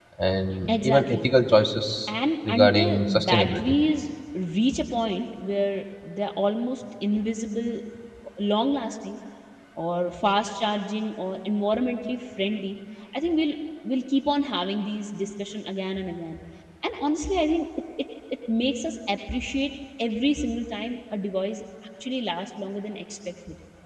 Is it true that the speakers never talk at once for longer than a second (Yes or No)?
No